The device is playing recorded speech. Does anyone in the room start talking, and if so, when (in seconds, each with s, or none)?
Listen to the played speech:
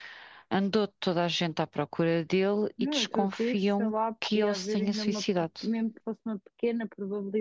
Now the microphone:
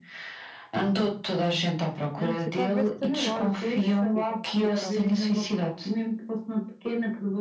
2.2 s